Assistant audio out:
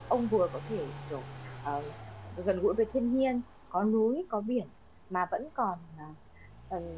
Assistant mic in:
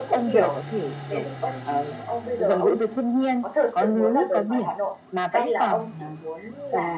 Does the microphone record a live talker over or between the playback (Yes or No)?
Yes